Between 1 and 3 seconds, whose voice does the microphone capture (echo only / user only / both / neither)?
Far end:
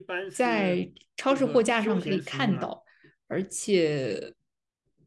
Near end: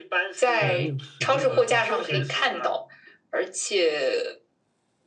both